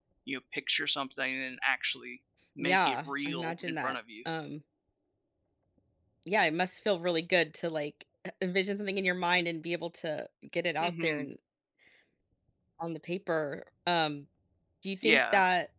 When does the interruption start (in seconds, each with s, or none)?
2.6 s